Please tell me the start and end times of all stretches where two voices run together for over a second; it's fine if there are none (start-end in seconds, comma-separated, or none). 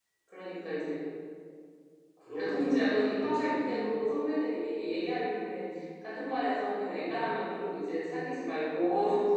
2.5-4.5